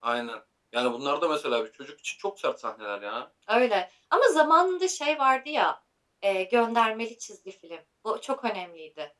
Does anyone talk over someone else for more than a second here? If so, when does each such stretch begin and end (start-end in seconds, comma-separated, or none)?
none